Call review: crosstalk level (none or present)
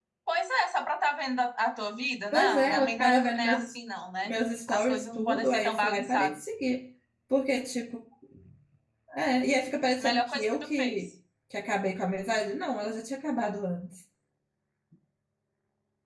present